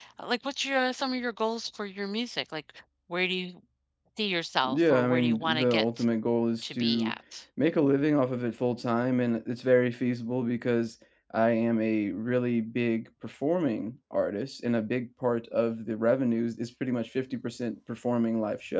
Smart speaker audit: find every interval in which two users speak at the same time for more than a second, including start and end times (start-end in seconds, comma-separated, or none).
4.6-6.0